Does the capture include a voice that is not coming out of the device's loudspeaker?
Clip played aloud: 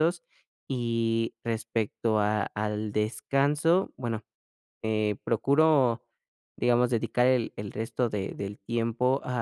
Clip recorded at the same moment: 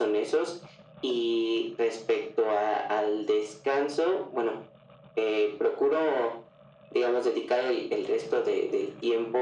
No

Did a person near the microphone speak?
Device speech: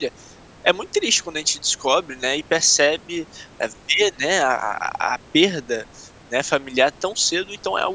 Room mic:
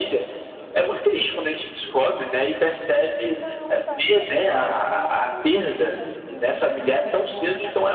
Yes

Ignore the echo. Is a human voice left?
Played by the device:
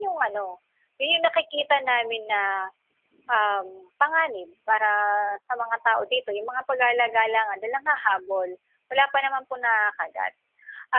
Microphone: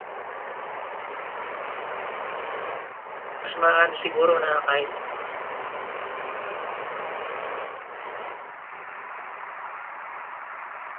Yes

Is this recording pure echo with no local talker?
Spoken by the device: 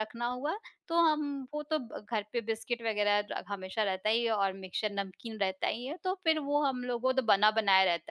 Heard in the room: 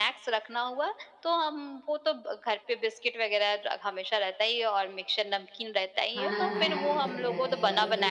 No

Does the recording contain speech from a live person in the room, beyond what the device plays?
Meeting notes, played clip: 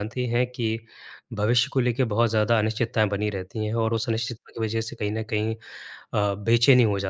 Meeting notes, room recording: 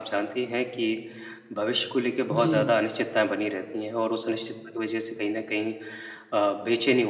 Yes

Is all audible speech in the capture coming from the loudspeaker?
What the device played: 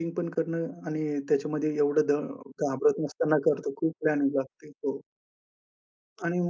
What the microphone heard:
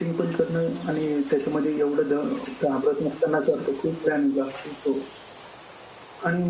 Yes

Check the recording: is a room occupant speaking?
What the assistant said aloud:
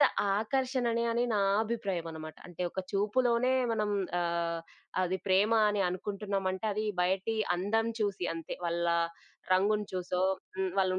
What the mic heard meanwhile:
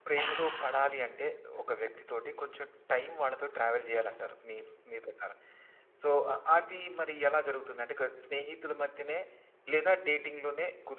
Yes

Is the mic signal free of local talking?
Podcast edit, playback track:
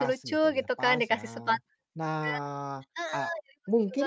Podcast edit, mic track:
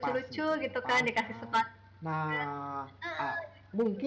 Yes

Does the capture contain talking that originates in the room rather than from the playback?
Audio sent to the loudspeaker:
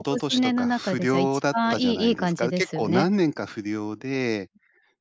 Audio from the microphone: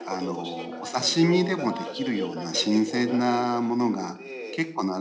Yes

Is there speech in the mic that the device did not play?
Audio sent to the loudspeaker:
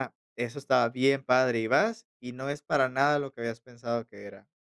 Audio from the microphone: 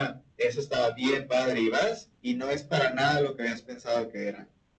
No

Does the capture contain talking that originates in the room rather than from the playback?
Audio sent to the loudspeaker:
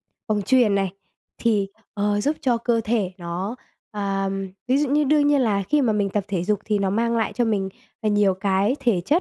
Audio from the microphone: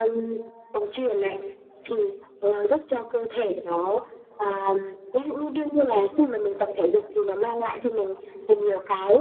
No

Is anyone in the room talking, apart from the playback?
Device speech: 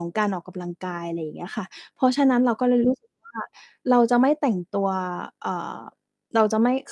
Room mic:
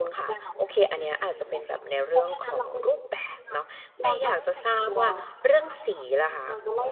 Yes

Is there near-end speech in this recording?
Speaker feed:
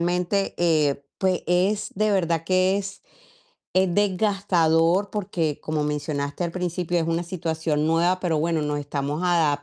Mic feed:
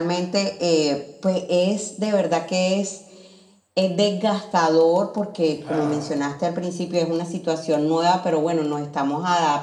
Yes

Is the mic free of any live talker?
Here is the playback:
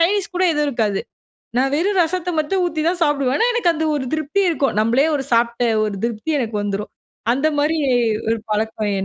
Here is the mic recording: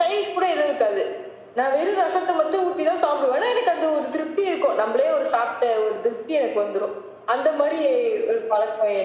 Yes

